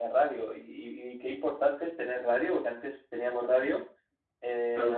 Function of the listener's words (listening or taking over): listening